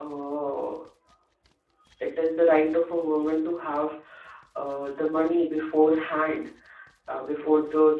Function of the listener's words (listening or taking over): listening